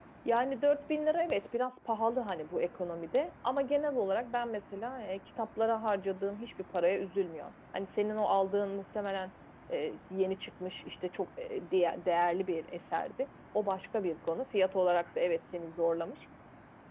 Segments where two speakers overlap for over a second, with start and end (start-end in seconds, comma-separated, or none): none